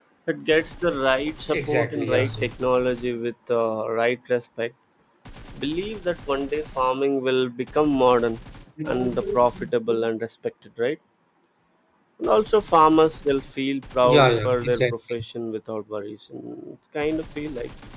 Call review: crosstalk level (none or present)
present